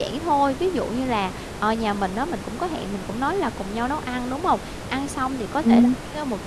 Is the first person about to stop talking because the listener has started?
No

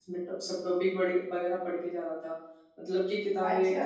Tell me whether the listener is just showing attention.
Yes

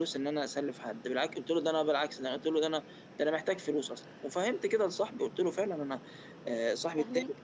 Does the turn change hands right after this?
No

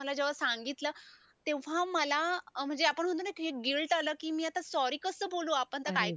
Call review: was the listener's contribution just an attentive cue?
No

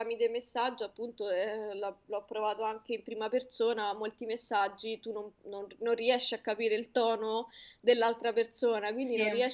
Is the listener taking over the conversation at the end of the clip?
No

